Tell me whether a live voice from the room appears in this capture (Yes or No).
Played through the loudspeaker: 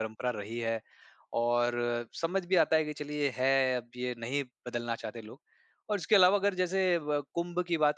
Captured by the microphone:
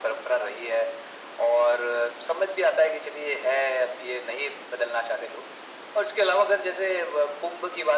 No